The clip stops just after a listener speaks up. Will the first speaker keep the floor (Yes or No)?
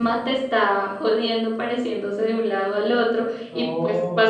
Yes